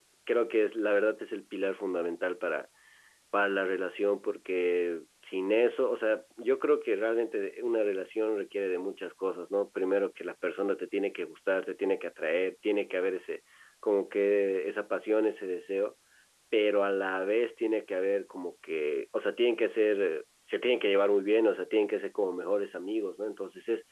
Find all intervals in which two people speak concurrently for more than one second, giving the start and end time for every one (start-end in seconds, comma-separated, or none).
none